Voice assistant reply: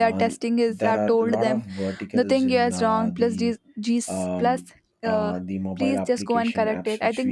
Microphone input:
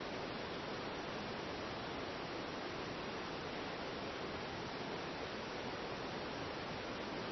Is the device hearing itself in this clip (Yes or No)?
No